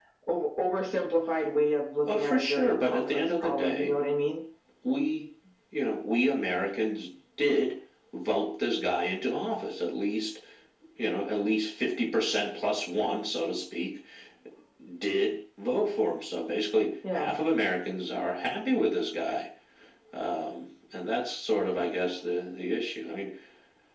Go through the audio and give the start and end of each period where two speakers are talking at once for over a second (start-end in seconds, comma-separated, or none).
2.1-3.9